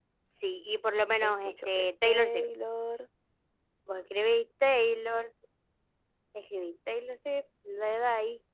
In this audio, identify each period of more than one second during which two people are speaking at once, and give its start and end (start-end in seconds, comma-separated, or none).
1.2-2.4